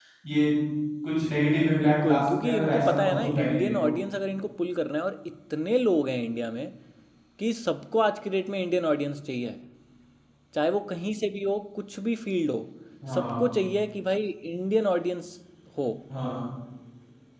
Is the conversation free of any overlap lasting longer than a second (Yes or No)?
No